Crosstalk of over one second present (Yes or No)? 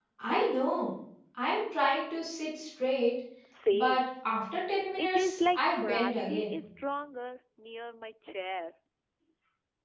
Yes